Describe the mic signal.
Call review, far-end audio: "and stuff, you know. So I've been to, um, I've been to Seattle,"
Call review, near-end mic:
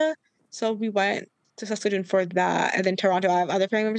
user only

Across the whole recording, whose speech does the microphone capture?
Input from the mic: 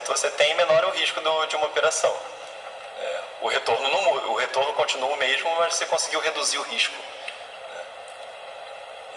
echo only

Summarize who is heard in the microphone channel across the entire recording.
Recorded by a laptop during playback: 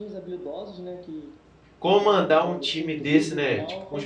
both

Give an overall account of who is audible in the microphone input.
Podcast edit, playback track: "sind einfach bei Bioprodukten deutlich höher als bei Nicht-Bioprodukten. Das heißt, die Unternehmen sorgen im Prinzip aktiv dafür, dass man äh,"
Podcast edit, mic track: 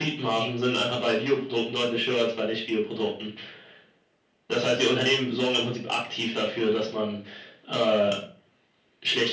echo only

